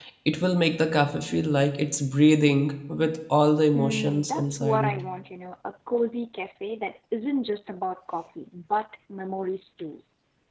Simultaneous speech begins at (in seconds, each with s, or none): 3.8 s